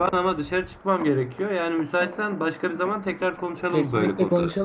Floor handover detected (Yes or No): Yes